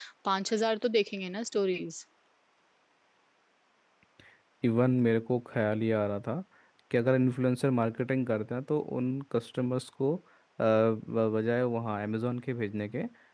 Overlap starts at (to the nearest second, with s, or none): none